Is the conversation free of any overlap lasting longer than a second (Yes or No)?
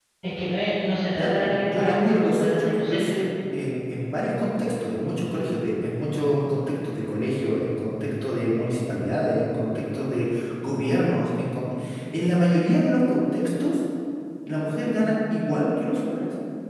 No